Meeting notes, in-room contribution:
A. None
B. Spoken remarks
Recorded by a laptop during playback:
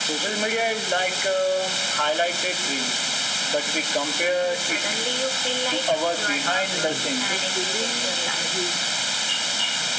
B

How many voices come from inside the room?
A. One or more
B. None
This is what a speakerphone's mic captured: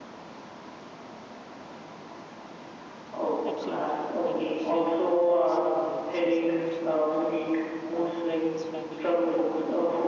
A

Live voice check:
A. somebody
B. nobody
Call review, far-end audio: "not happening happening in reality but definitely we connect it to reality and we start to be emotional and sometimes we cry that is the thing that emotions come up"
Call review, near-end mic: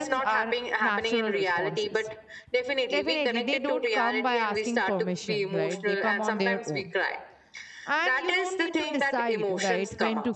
A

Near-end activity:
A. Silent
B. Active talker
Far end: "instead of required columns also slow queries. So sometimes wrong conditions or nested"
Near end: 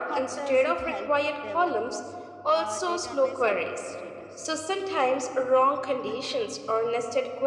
B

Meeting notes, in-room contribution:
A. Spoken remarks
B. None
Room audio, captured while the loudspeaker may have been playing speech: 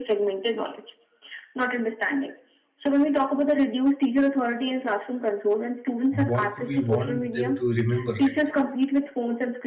A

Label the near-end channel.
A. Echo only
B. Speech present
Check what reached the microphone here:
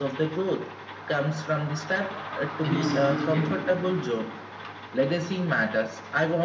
B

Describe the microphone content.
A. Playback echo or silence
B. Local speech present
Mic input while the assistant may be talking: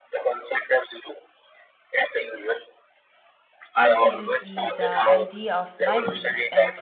B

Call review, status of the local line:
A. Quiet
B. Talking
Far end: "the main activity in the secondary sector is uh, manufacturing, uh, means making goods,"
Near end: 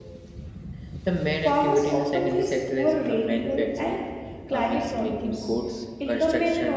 B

